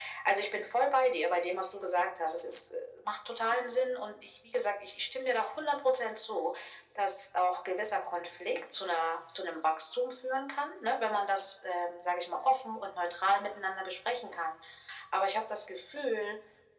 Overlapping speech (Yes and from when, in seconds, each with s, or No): No